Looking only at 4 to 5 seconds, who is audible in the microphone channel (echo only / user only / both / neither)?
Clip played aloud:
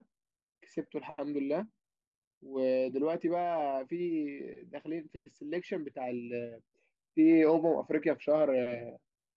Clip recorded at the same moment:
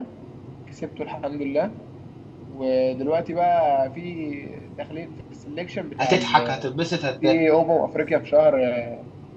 echo only